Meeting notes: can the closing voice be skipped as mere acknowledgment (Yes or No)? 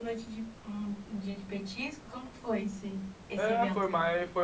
No